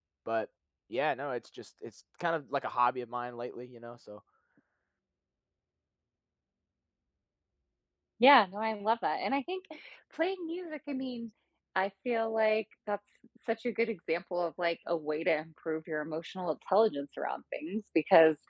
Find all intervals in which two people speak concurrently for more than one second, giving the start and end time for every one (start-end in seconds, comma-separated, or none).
none